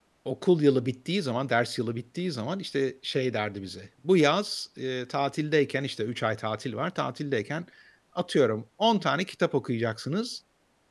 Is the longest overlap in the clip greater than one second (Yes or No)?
No